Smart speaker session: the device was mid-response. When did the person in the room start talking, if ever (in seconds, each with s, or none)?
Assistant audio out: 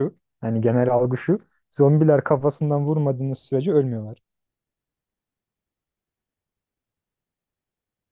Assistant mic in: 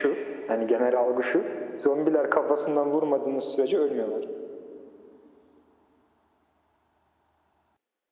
none